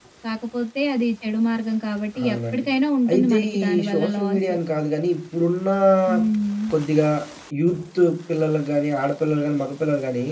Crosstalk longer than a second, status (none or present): present